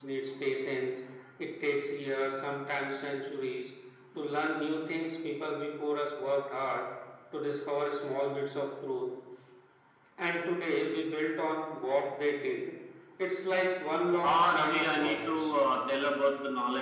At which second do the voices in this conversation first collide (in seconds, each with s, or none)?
14.2 s